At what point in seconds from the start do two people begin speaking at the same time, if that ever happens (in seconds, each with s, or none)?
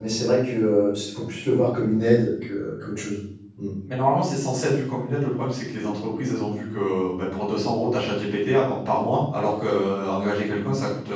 none